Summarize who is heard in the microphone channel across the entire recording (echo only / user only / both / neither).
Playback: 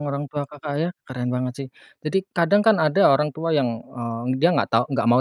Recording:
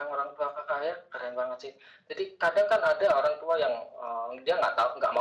echo only